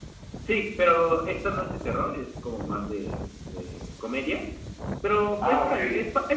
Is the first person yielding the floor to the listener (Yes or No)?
No